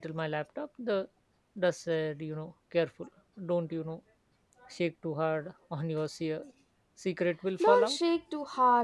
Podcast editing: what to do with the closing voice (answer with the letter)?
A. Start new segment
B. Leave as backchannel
A